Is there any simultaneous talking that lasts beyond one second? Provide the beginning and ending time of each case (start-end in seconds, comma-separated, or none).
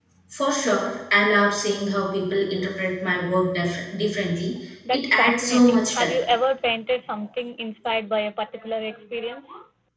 4.9-6.1